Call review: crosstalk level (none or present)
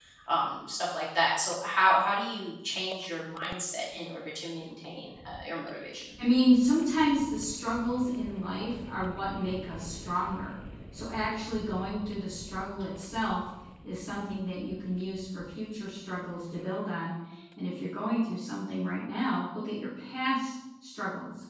none